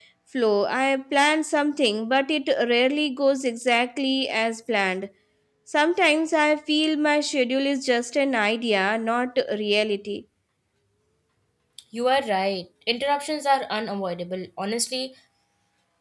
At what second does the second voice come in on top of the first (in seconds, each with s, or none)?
none